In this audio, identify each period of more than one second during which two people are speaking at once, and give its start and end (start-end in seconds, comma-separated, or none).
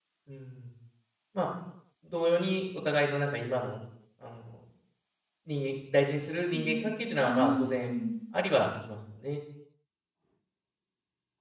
6.5-7.9